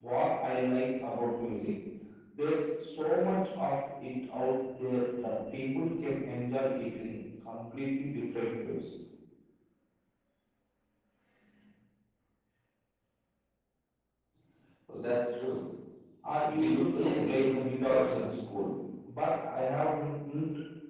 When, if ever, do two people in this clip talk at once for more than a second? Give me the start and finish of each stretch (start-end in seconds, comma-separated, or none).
16.5-18.2